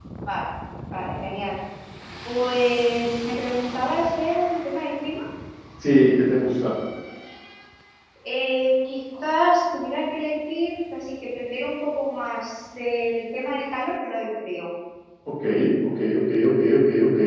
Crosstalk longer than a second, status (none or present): none